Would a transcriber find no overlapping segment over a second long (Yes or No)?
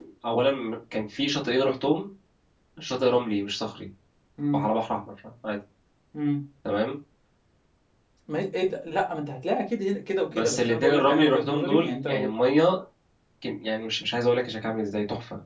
No